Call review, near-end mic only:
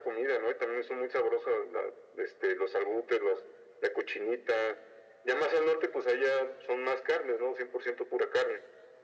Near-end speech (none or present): none